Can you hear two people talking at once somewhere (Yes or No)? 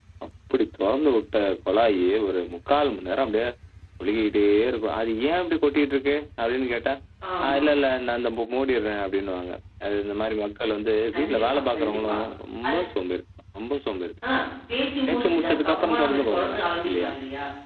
Yes